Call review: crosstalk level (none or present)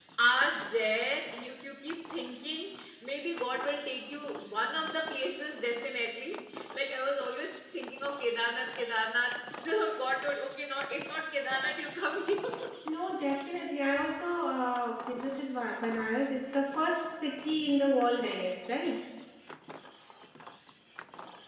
none